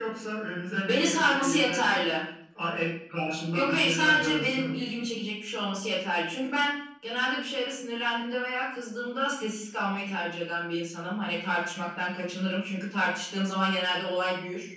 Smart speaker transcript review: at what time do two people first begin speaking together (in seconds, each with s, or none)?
0.7 s